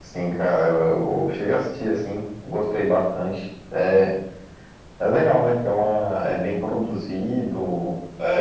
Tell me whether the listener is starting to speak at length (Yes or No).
Yes